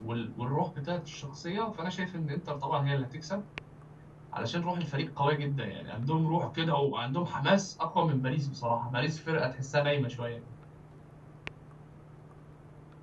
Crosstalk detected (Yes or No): No